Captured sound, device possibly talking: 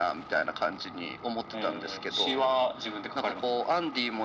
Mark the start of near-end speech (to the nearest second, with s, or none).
none